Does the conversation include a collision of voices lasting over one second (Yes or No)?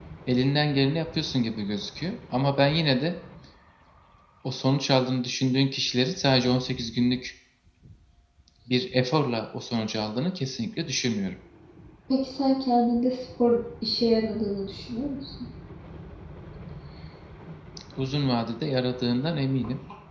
No